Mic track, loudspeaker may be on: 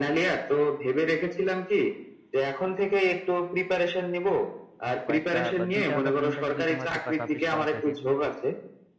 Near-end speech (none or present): present